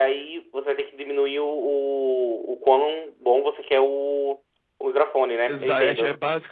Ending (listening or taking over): taking over